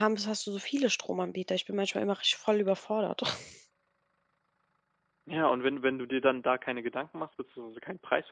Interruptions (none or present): none